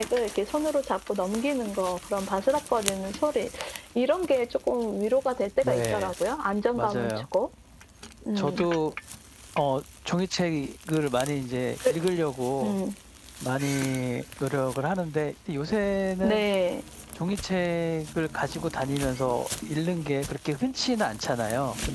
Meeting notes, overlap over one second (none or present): none